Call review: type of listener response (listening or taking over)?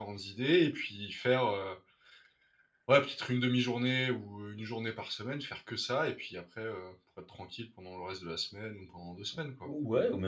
taking over